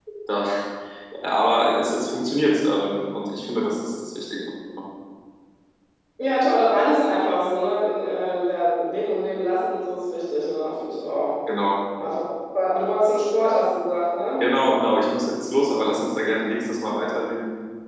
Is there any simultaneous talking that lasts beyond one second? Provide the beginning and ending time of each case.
none

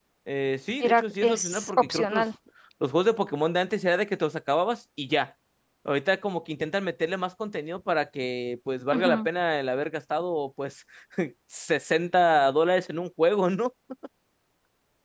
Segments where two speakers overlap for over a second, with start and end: 0.8-2.2

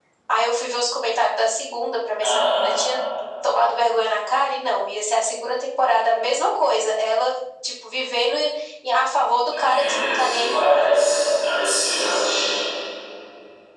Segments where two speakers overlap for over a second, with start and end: 9.5-11.0

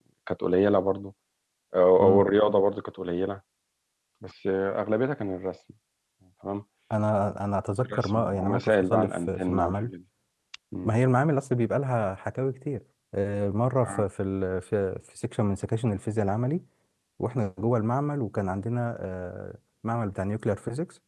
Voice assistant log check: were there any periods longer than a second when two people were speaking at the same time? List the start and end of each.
7.9-9.9

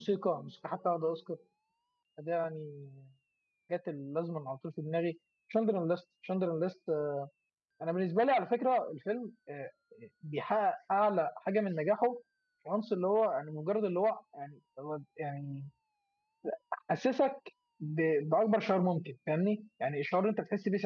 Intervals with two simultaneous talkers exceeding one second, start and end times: none

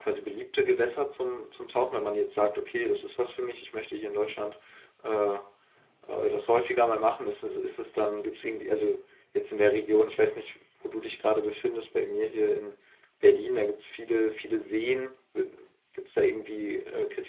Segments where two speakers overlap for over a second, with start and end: none

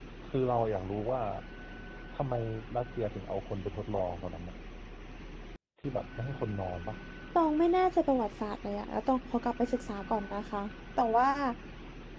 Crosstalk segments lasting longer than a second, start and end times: none

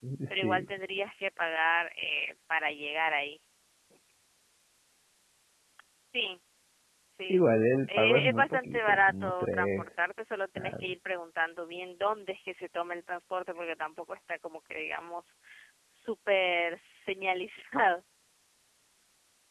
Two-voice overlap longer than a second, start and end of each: 8.0-9.9

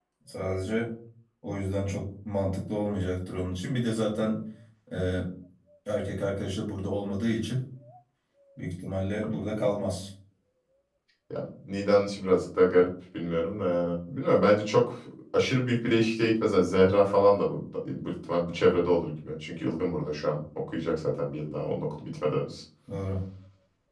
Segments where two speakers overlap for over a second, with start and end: none

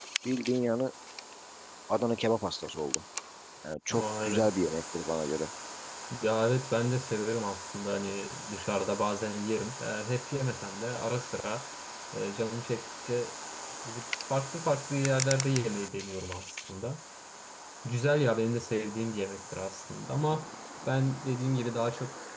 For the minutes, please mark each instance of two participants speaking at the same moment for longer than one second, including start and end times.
none

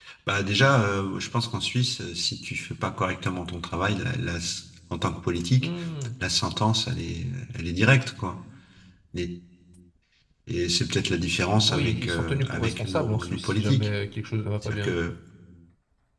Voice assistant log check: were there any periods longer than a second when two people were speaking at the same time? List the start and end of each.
11.7-13.9

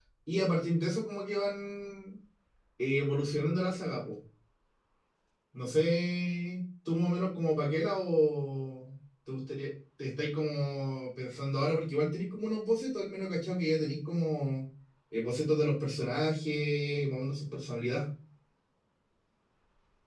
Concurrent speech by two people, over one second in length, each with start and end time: none

